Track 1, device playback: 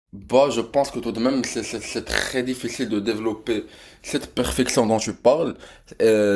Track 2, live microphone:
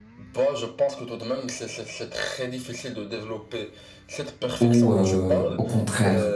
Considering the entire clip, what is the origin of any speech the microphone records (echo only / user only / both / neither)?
both